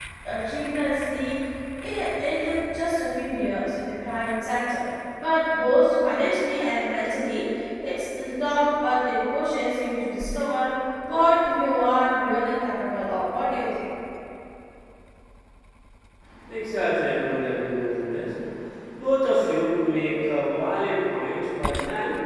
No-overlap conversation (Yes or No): Yes